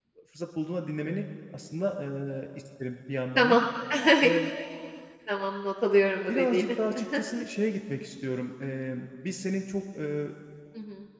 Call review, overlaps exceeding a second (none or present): none